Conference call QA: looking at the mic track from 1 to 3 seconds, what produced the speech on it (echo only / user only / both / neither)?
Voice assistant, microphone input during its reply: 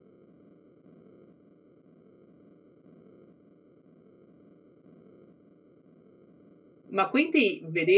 neither